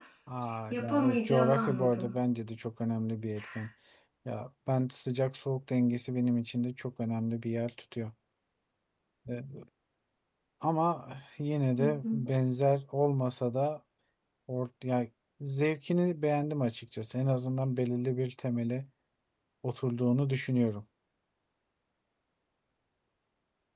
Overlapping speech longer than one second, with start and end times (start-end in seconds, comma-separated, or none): 0.7-2.1